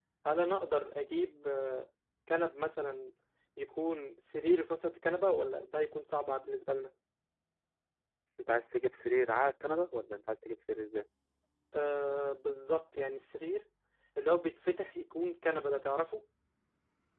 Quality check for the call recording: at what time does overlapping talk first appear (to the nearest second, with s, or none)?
none